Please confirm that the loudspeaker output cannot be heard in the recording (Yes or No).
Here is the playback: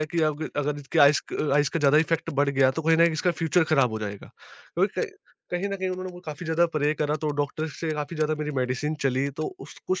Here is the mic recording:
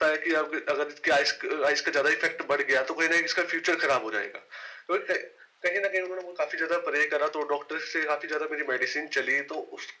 No